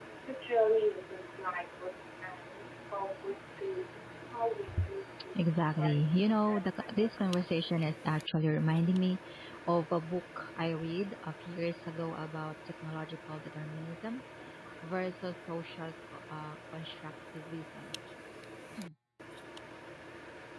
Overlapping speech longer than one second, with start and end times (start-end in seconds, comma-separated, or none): 5.8-7.4